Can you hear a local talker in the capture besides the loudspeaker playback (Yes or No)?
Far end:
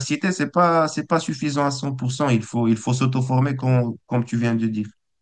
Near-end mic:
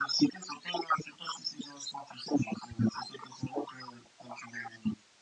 No